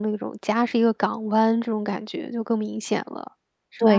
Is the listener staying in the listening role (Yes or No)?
No